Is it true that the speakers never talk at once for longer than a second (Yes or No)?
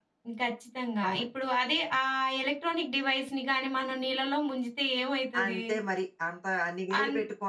Yes